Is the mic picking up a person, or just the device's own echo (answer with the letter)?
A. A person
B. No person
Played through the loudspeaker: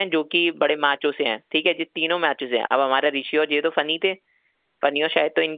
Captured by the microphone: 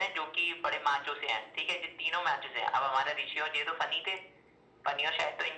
B